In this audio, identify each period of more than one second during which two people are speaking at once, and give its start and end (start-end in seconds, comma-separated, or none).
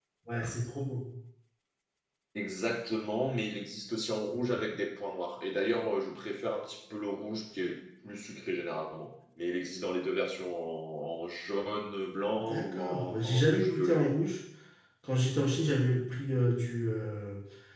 12.4-14.2